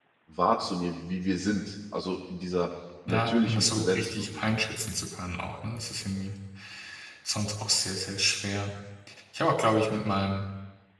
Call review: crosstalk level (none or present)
present